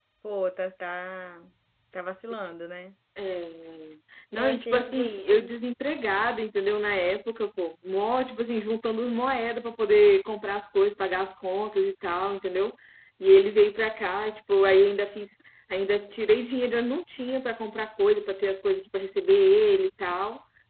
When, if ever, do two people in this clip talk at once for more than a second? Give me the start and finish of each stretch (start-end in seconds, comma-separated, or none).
4.4-5.7